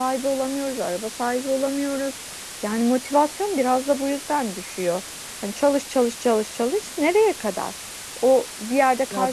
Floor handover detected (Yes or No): No